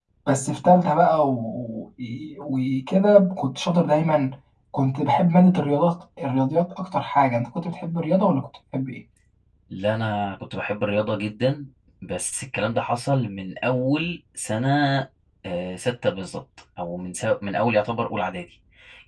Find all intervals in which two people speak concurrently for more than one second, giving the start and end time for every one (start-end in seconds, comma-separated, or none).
none